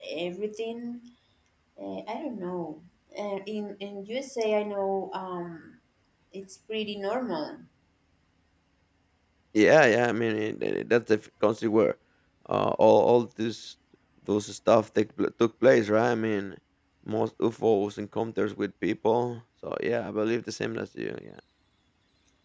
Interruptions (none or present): none